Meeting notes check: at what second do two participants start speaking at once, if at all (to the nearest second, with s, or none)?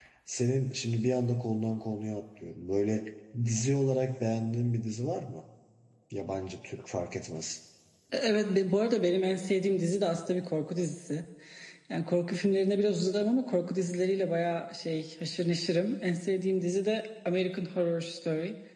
none